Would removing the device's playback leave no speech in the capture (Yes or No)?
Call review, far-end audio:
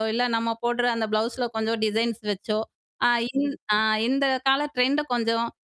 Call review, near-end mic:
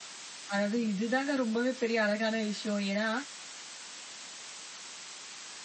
No